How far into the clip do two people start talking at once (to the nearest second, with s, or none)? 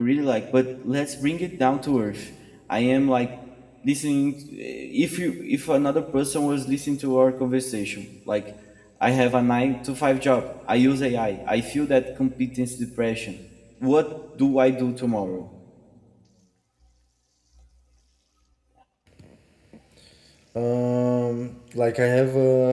none